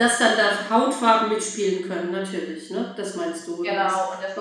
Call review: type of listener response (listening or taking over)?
taking over